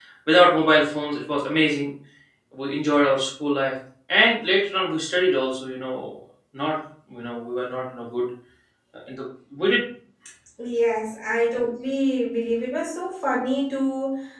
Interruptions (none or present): none